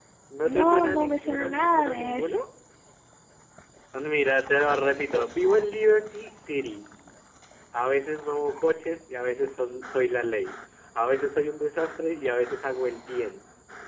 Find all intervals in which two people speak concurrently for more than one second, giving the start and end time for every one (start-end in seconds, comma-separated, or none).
0.6-2.4